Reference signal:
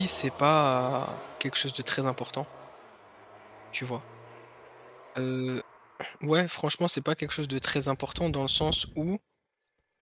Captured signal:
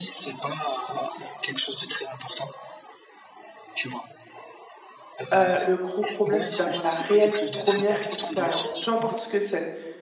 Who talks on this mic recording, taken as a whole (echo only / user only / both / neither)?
both